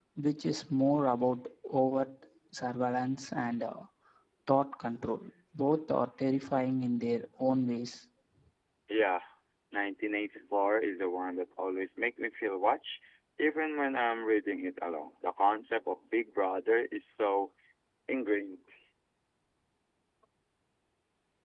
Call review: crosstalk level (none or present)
none